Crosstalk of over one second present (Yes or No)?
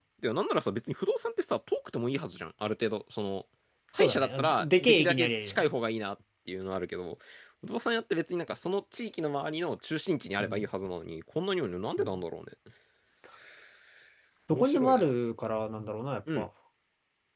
Yes